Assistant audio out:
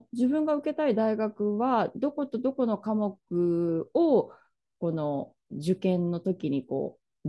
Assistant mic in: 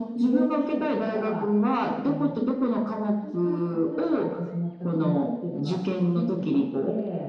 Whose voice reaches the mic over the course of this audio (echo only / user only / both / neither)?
both